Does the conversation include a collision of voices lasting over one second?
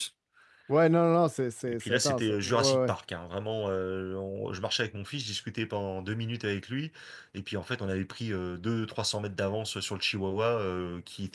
Yes, from 1.7 s

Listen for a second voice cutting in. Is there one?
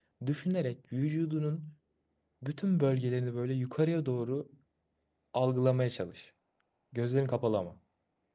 No

